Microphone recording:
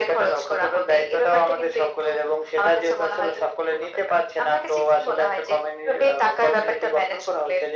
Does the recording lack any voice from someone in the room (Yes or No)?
Yes